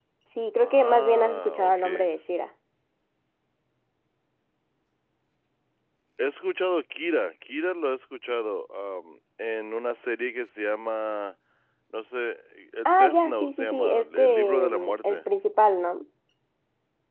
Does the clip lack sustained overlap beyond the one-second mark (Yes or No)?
No